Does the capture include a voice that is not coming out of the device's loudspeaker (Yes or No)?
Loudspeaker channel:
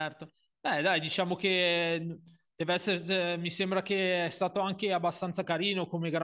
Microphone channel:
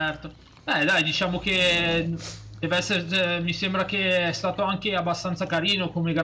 No